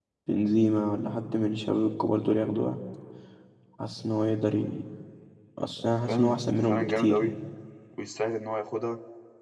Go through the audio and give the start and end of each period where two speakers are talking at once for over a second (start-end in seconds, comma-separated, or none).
6.1-7.3